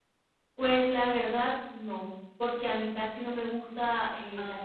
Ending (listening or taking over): listening